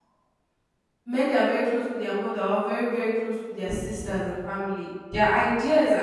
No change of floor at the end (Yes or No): No